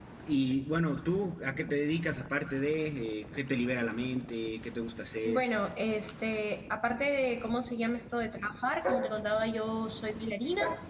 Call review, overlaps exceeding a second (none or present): none